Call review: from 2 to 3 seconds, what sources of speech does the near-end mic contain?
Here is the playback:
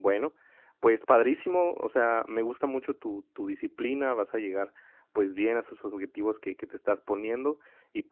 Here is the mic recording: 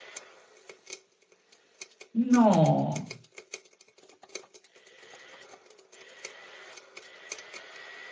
user only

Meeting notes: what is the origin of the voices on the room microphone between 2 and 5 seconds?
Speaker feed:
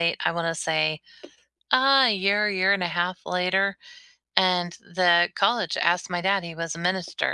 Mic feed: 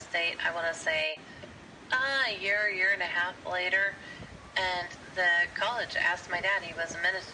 echo only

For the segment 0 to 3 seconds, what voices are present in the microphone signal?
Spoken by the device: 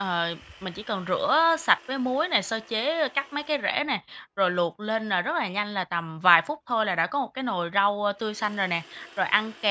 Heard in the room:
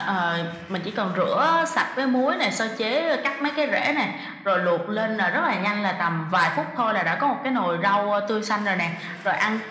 echo only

